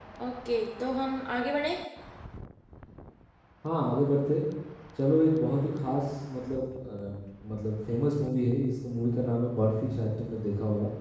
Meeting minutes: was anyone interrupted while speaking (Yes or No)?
No